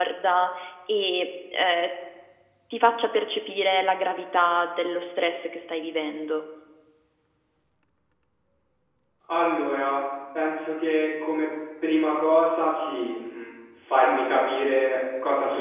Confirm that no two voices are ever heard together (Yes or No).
Yes